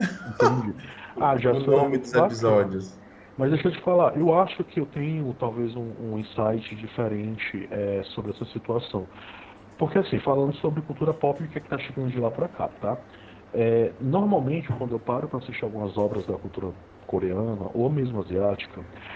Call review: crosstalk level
present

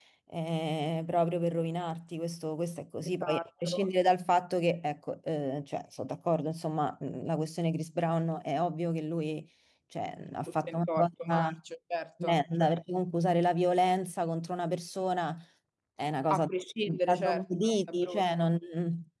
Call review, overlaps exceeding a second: present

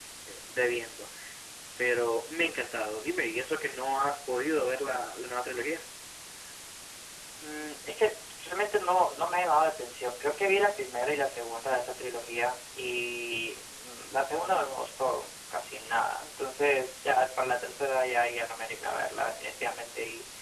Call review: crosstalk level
none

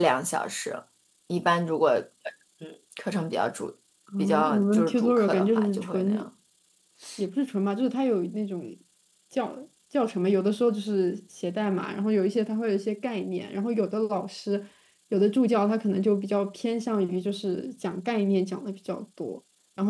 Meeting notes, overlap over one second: present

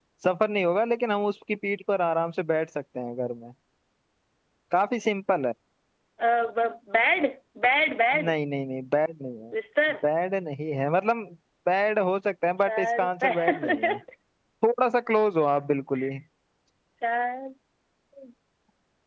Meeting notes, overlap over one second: present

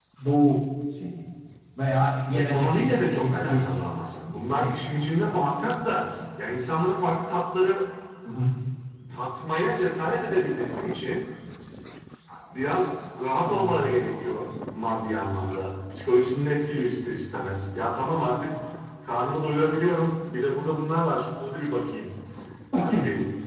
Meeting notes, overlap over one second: present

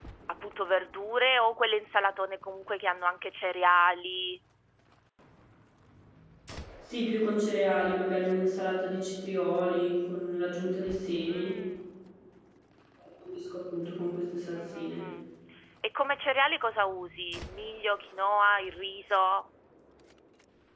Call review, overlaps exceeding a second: none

